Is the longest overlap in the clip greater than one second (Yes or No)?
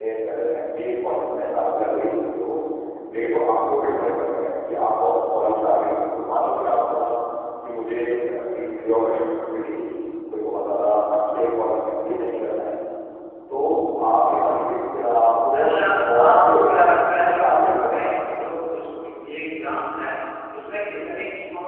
Yes